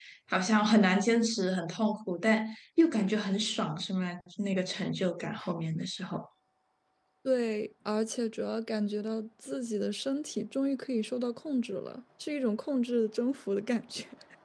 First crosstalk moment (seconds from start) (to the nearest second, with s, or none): none